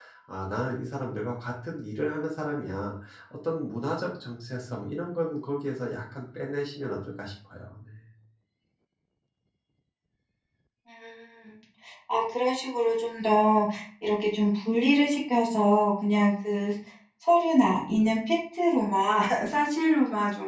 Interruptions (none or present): none